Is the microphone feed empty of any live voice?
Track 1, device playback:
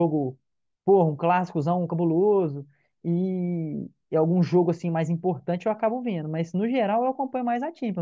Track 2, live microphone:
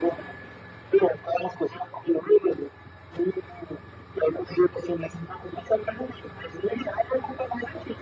Yes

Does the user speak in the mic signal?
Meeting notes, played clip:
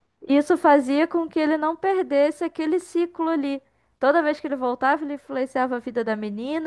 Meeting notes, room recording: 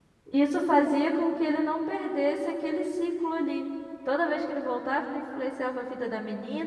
No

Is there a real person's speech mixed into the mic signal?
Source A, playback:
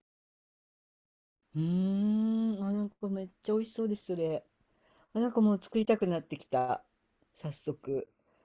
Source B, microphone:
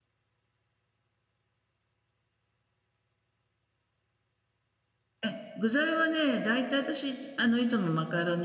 Yes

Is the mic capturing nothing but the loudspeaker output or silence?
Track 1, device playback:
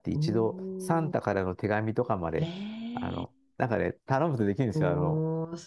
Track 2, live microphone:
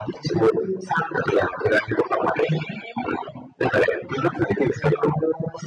Yes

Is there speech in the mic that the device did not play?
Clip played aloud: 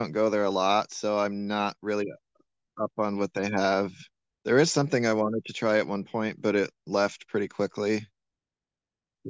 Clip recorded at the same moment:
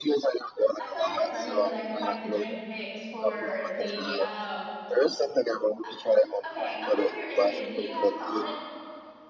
Yes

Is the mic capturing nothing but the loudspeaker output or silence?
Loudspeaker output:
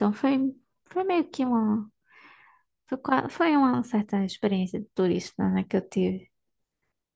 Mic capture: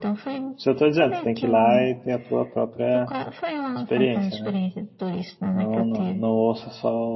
No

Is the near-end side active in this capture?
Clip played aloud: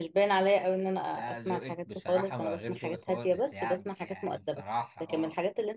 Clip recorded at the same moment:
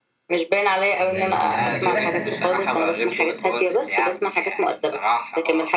Yes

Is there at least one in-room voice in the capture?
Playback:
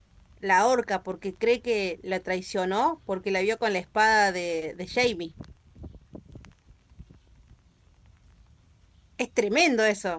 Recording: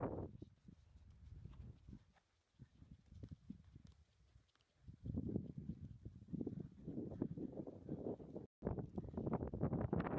No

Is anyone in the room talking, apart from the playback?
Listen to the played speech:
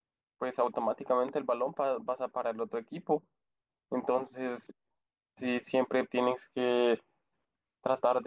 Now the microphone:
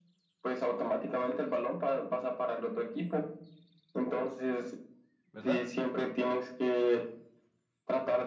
Yes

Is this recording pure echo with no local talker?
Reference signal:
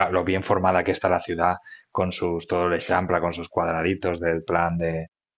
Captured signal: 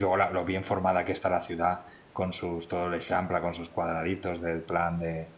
Yes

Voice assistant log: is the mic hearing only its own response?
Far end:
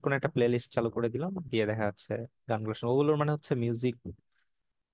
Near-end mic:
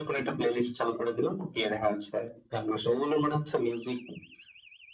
Yes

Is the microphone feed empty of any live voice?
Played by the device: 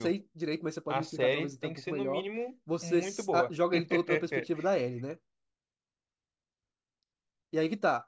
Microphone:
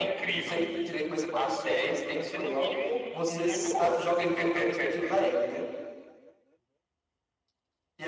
Yes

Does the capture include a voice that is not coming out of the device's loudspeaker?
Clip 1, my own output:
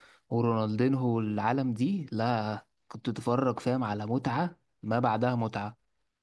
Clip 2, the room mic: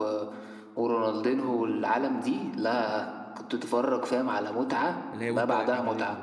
Yes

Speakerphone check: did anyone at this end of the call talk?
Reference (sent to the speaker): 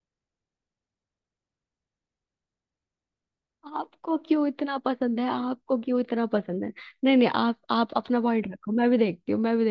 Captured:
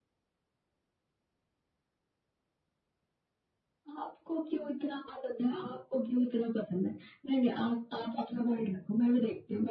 No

